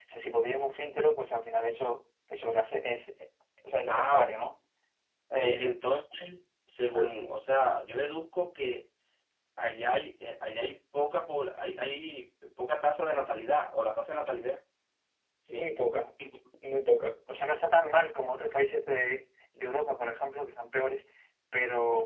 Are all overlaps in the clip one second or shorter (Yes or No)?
Yes